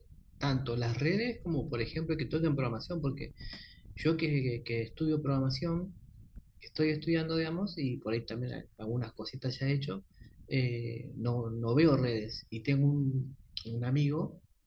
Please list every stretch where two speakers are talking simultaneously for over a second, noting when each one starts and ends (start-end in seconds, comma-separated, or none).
none